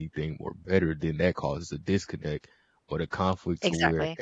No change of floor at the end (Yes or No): Yes